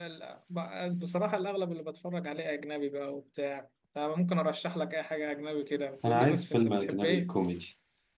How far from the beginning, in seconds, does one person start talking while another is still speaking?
6 s

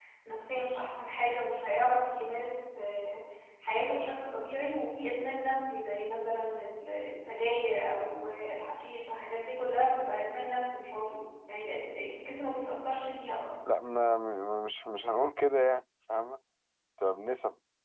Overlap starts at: none

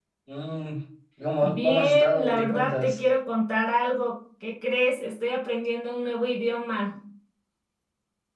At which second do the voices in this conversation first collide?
1 s

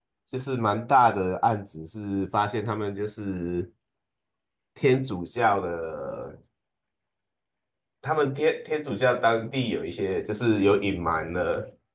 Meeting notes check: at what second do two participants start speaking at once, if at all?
none

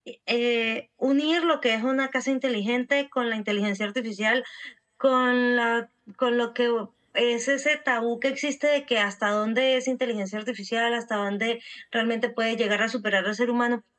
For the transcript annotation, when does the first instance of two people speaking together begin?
none

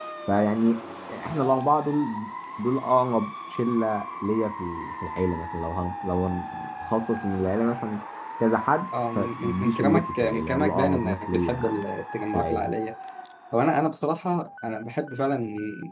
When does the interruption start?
9 s

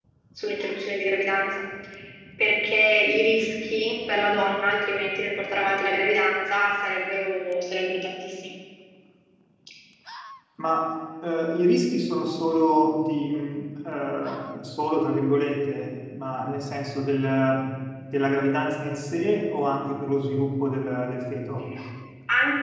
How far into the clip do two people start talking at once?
none

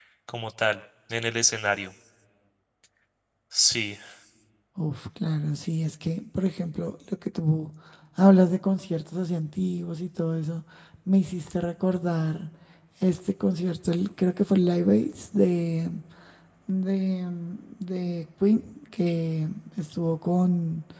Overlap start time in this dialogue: none

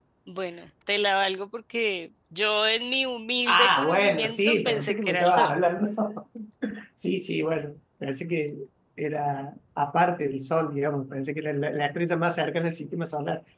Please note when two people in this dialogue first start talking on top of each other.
3 s

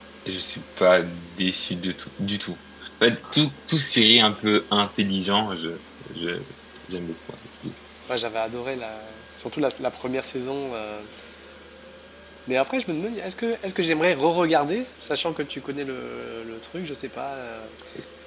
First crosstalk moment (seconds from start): none

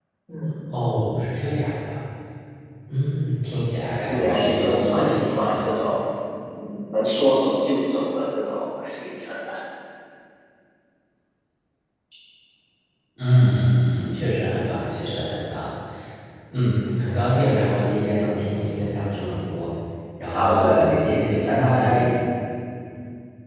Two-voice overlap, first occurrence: 4 s

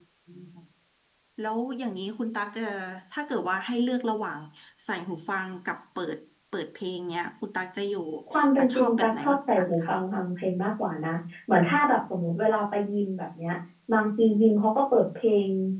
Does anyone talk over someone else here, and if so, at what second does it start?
9 s

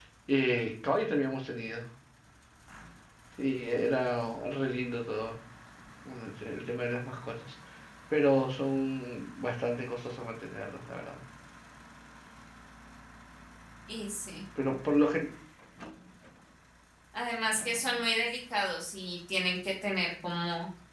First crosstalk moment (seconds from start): none

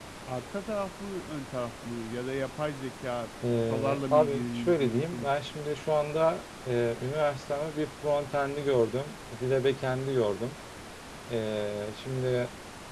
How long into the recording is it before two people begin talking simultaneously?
3 s

